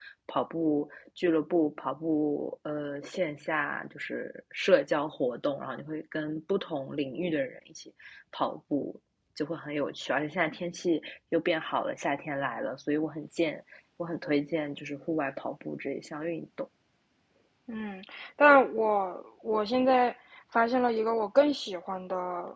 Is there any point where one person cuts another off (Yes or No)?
No